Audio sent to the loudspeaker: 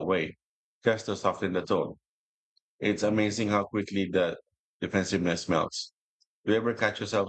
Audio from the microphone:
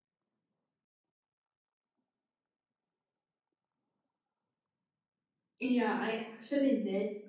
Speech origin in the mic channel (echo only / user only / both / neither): user only